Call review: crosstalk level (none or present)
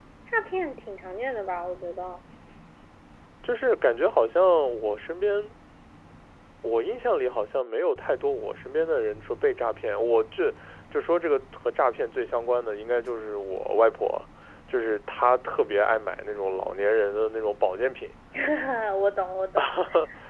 none